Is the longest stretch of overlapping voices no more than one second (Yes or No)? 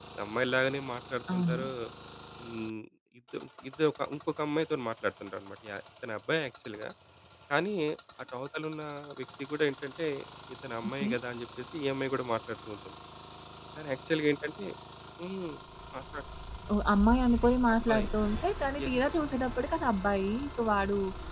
Yes